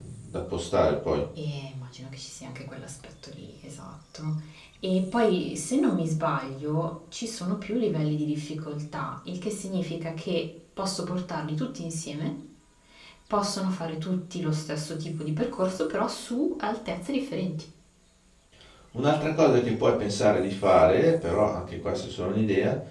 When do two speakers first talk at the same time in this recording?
none

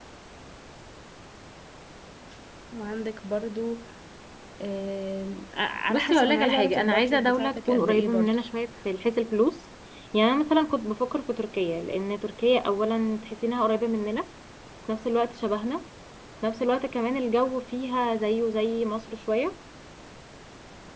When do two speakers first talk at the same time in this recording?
6 s

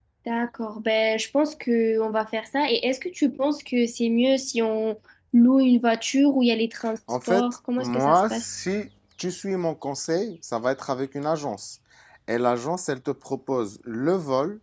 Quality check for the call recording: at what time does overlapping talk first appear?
7 s

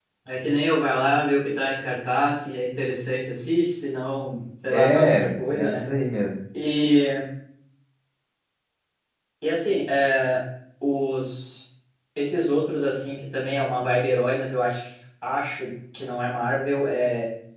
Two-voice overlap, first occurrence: 5 s

